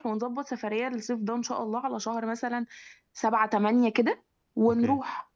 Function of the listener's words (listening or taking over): taking over